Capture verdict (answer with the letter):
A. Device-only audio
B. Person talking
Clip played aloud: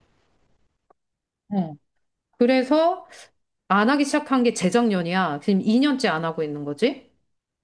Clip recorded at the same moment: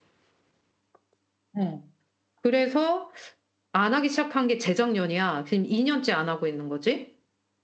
A